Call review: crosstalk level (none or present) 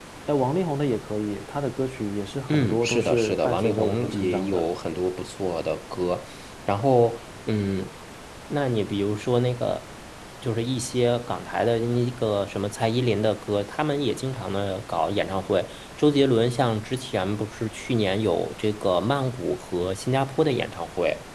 present